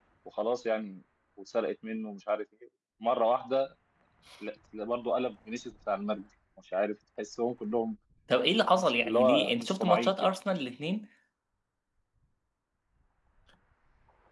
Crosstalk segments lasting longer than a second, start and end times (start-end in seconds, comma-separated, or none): 8.8-10.3